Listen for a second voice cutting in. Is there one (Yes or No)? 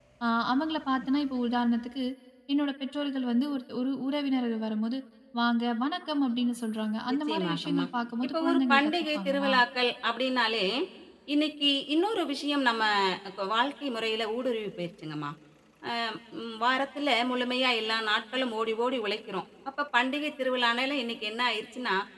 Yes